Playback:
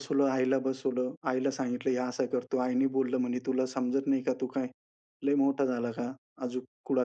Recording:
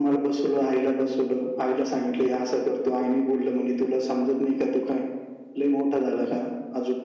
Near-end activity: none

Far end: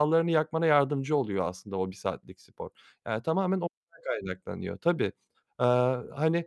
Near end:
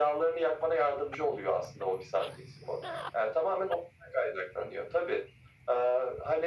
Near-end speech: none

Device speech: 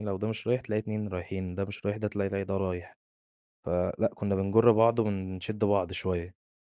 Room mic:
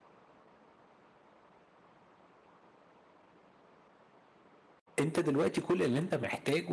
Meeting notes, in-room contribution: present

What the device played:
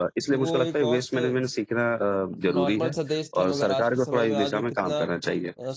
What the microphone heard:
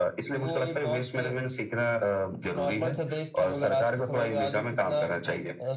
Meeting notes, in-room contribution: none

